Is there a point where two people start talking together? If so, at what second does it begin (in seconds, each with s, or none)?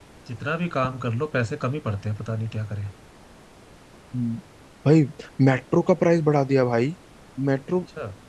none